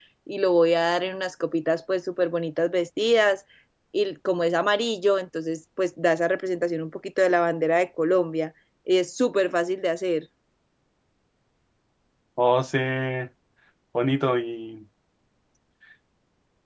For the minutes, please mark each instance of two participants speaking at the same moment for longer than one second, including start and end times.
none

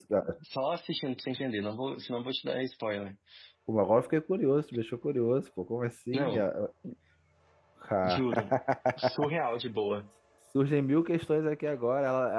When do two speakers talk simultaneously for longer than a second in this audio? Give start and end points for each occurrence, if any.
none

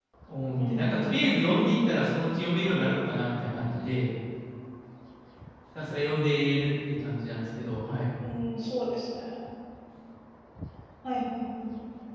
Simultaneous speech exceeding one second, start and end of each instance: none

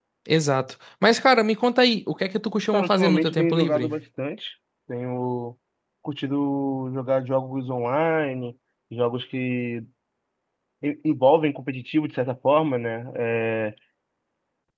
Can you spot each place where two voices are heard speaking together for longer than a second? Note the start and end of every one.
2.7-3.9

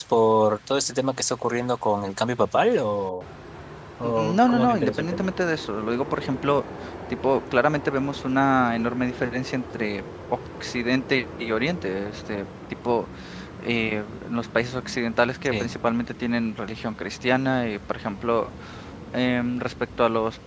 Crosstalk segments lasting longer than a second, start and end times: 4.0-5.3

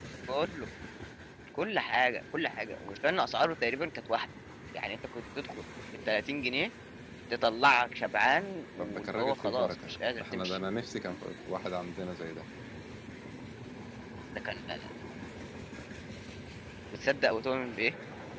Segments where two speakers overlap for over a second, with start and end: 8.8-10.6

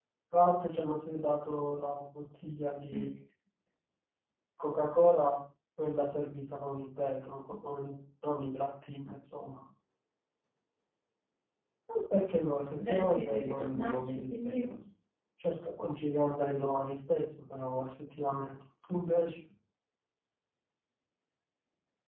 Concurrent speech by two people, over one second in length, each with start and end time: 12.8-14.7

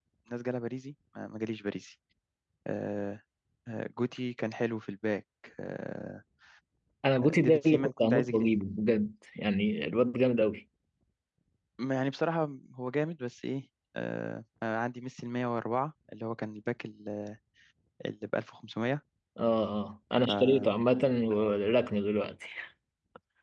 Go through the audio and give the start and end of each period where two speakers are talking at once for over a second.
7.2-8.5

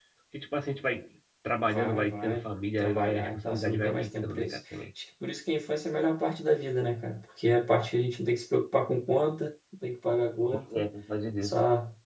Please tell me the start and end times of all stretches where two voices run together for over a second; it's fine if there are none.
1.6-4.8

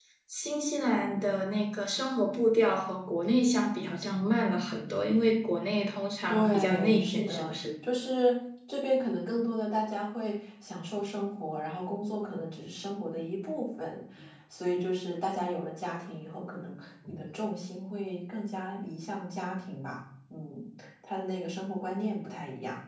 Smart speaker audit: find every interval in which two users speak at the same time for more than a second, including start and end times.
6.3-7.5

